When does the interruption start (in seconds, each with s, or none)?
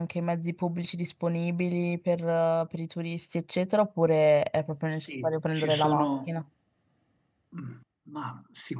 4.9 s